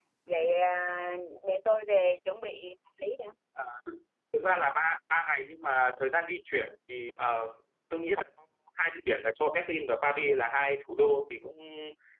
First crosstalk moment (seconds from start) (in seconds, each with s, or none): none